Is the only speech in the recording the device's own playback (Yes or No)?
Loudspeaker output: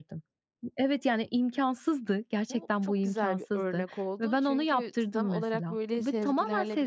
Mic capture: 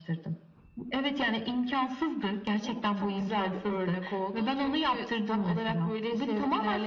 Yes